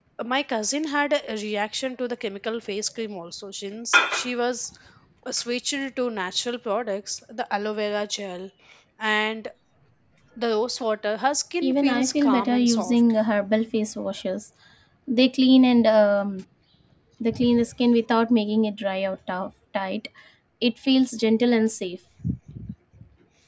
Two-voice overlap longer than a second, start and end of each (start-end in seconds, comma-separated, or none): 11.6-13.0